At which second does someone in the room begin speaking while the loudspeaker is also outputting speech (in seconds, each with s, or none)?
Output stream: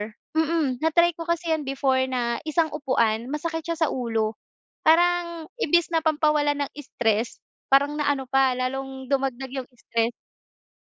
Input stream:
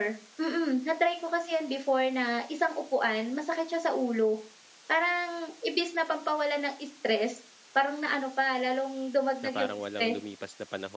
9.4 s